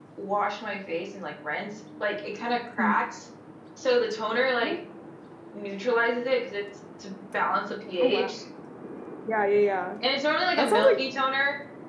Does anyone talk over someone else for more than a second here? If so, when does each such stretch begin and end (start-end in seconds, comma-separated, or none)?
none